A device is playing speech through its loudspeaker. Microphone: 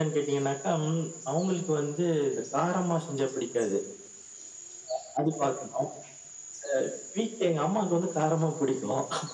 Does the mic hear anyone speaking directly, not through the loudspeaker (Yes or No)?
No